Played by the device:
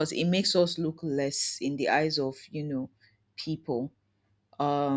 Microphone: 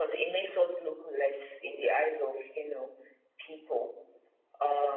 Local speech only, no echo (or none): none